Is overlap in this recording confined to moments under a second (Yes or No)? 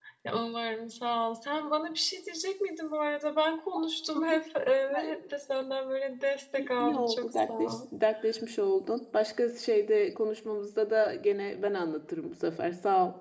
No